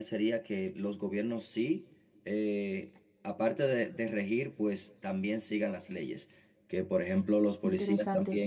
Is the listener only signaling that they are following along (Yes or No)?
Yes